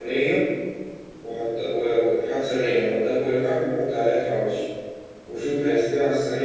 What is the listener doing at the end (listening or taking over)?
listening